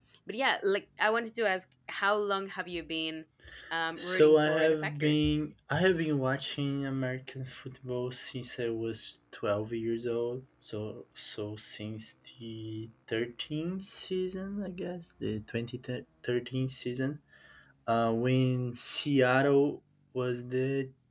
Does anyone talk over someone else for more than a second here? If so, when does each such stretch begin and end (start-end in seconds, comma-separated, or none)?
4.0-5.4